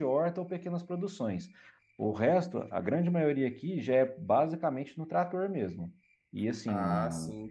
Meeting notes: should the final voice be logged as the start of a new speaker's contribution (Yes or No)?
Yes